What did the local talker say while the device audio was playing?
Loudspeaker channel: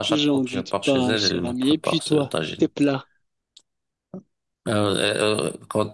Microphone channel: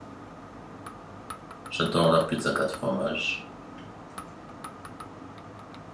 J'adore la pizza quatre fromages.

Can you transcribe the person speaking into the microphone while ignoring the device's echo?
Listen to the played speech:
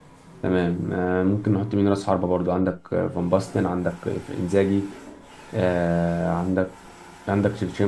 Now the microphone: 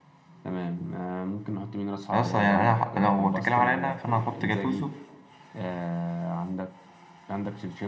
أصلا يعني أنا ح- لو بتتكلم عليا أنا فأنا هحط جاتوزو

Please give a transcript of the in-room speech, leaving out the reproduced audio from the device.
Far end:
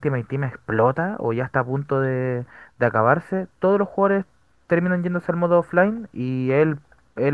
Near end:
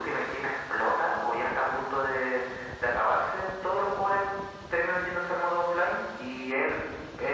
none

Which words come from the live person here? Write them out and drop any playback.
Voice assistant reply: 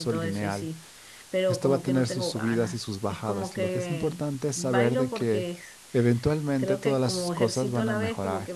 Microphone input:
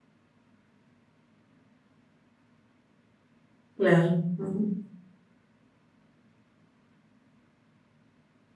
Claro. ujú.

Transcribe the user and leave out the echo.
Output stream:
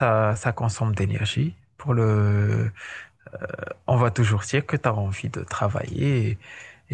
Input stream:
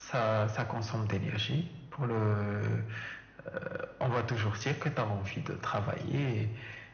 none

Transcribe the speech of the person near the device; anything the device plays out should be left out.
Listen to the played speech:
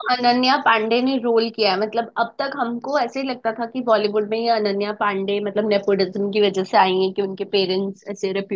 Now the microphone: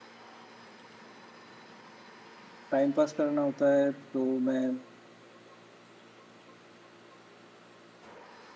टाइम पास करना होता है तो मैं

